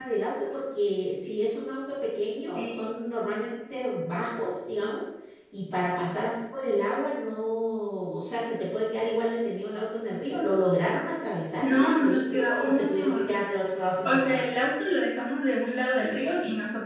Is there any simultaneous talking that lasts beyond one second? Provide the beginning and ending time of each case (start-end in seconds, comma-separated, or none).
11.6-13.3